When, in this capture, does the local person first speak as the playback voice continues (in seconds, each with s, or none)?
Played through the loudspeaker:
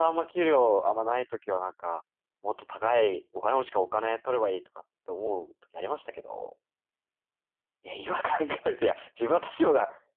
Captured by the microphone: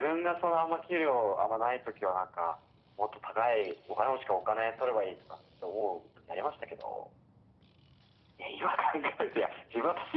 none